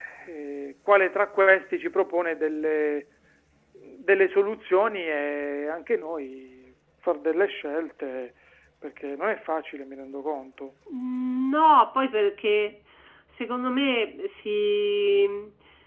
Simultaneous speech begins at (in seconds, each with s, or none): none